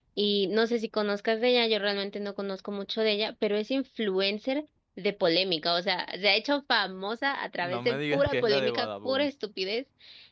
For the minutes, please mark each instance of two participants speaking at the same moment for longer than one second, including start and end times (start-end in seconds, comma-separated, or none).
7.6-9.3